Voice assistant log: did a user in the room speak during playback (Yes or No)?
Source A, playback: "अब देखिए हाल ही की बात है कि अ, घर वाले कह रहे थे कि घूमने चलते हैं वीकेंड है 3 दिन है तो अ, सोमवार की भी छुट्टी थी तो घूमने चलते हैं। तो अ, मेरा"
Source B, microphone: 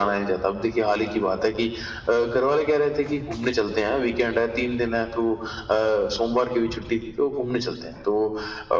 No